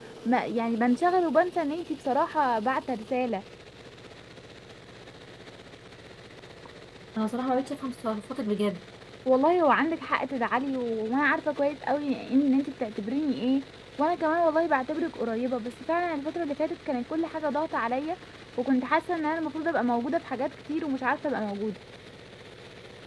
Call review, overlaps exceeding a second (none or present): none